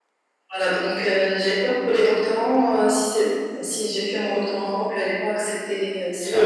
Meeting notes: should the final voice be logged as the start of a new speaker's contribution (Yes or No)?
Yes